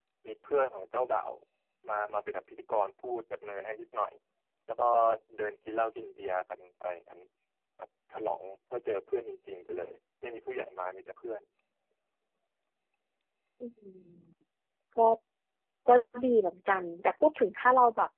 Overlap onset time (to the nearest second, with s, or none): none